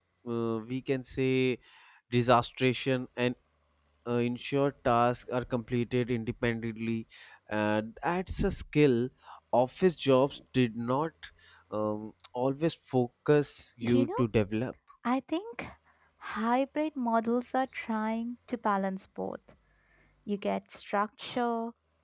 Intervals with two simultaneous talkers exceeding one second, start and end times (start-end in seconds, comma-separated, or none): none